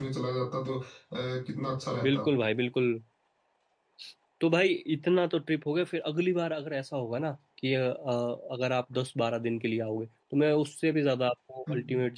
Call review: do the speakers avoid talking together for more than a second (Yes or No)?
Yes